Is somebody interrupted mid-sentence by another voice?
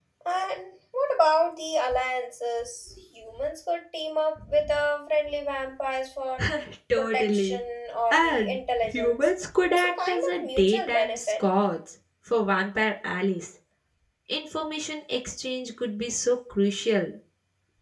Yes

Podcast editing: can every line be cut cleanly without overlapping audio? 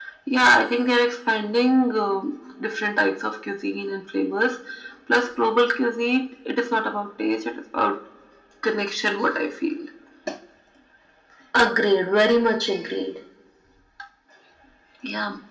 Yes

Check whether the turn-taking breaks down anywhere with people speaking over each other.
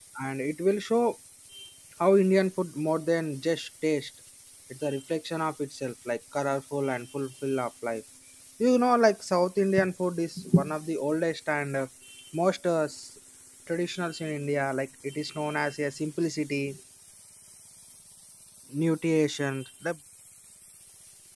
No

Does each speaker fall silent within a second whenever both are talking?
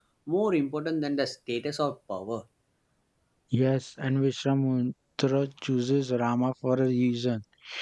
Yes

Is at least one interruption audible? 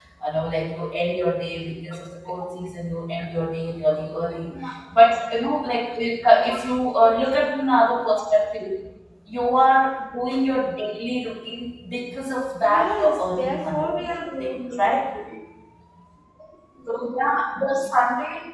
Yes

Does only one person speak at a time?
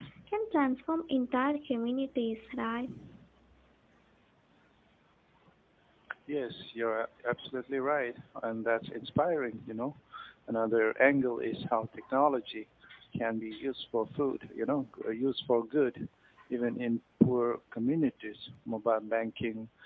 Yes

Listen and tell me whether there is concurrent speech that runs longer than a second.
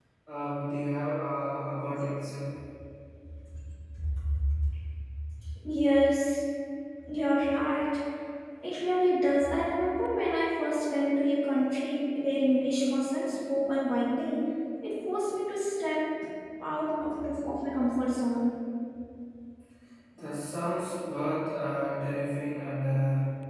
No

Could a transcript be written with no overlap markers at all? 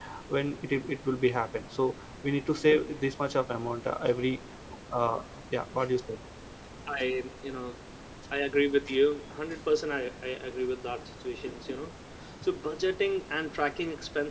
Yes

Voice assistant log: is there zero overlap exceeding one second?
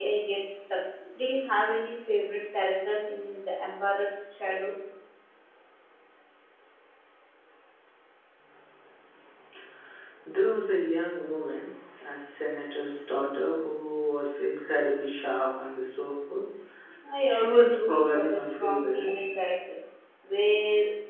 No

